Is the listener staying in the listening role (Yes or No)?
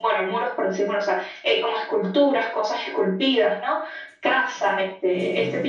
Yes